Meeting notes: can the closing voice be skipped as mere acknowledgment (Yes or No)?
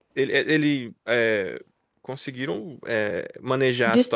Yes